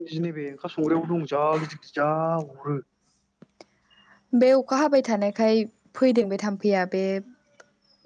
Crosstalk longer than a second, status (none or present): none